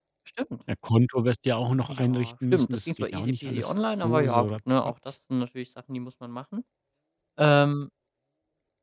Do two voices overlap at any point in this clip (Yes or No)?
Yes